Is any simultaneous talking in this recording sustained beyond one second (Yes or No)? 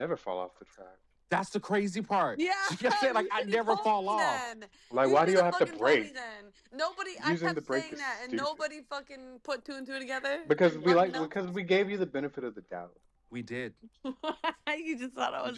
Yes